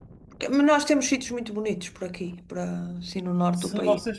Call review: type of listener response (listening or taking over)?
taking over